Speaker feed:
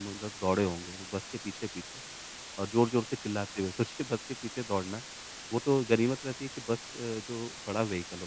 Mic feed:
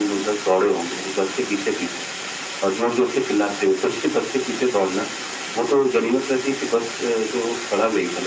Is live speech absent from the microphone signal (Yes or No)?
Yes